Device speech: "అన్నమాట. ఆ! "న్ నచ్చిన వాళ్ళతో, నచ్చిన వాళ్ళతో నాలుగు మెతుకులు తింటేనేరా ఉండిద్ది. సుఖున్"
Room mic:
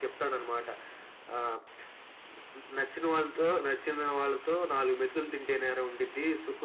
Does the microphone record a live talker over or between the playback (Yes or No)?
No